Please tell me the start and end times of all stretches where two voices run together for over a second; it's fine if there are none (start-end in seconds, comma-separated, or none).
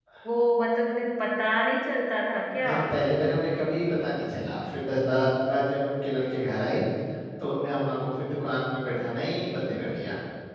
none